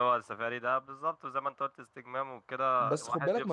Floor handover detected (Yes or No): Yes